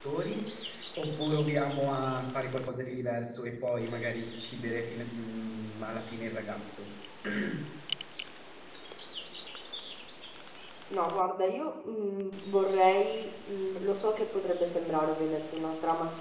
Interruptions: none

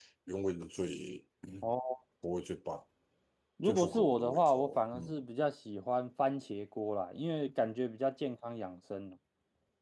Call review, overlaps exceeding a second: present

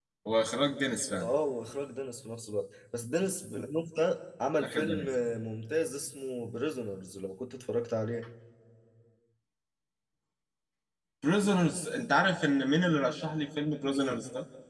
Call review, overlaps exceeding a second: none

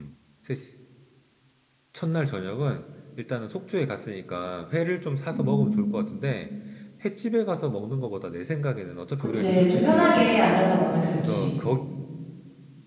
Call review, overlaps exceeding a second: present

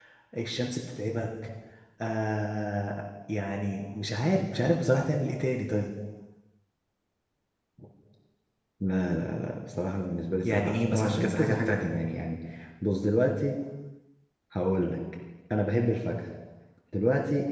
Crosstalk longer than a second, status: present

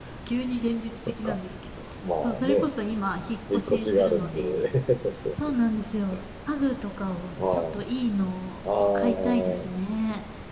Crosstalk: present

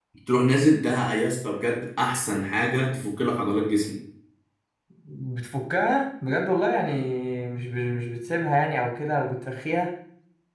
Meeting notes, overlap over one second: none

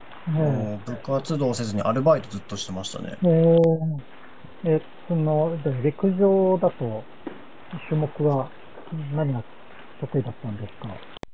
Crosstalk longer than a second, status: none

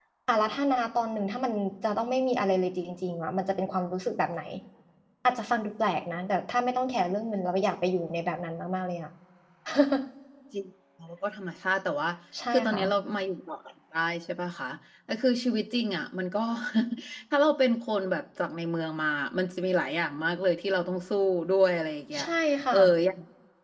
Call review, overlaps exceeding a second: none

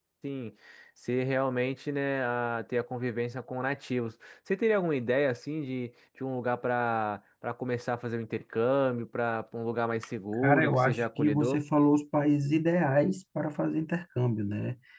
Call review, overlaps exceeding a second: present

